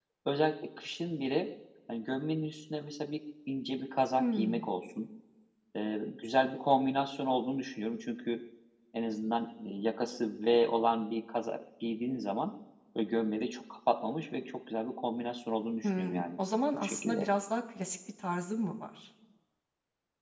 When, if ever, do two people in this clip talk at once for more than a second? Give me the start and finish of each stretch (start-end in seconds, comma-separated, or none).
none